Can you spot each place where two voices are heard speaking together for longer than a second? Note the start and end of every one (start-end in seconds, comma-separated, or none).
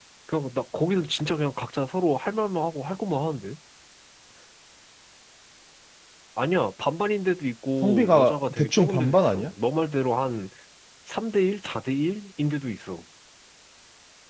7.8-9.5